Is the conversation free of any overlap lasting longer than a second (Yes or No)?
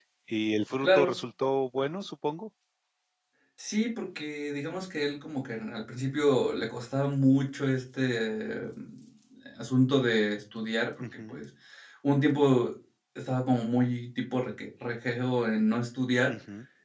Yes